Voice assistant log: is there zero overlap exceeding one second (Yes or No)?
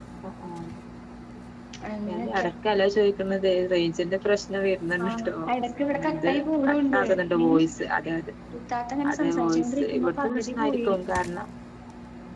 No